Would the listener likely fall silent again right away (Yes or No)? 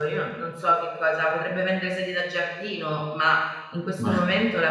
Yes